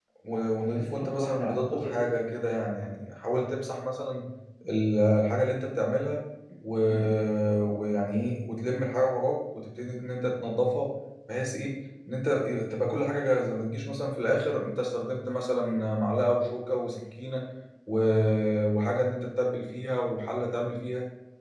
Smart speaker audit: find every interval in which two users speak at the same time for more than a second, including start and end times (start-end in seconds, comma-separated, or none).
0.7-2.1